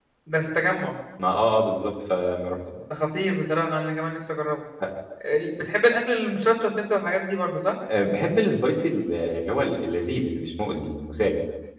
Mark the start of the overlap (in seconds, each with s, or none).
none